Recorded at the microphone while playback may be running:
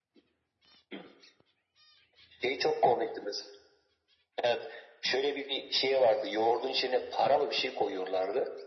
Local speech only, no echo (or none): none